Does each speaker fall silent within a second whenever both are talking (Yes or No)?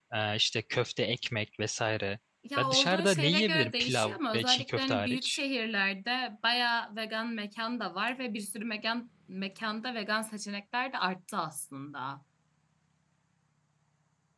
No